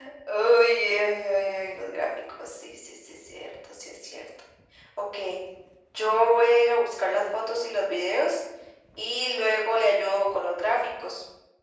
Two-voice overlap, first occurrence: none

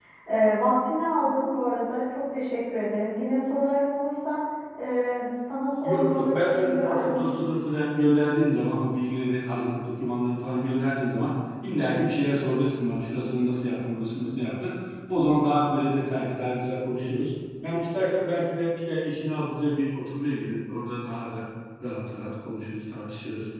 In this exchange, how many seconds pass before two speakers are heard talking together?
5.8 s

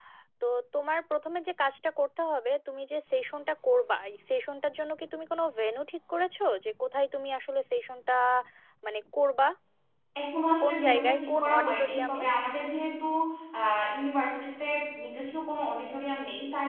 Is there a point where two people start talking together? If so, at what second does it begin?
10.6 s

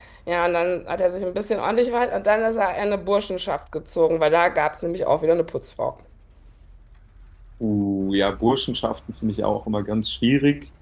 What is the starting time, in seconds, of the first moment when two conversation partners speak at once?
none

